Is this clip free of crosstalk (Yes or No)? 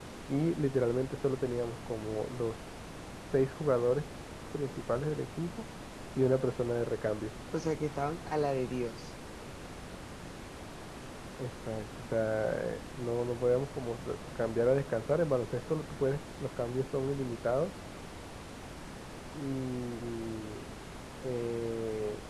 Yes